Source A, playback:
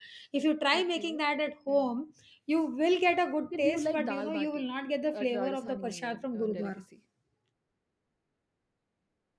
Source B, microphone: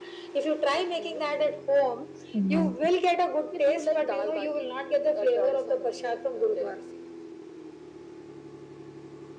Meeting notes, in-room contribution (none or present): present